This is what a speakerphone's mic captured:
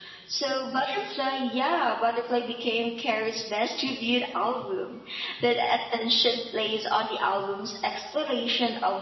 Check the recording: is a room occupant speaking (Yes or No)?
No